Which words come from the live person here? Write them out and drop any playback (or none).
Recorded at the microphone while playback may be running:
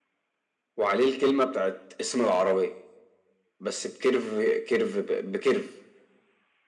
none